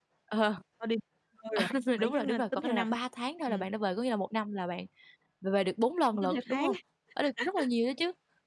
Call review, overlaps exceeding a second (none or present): present